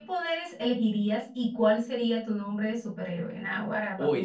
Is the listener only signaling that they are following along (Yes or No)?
No